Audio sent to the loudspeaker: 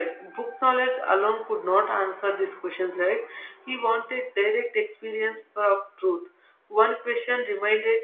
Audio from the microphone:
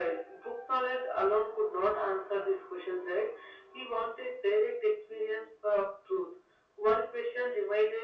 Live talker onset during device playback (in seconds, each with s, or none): none